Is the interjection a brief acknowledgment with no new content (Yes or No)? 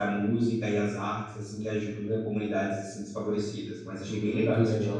No